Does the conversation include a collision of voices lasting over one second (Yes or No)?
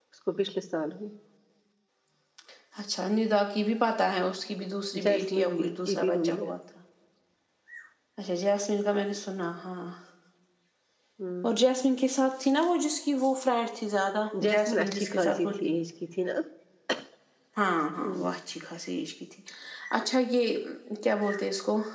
Yes